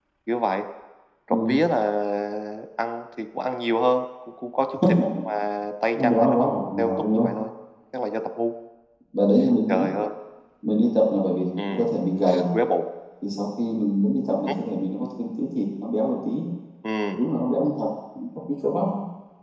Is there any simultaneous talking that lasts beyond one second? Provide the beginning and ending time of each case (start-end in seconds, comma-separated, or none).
5.9-7.3